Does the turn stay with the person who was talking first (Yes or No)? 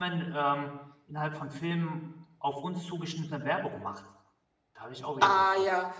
No